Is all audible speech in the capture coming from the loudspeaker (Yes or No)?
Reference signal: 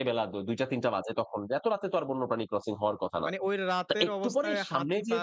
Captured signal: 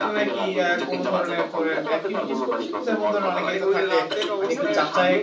No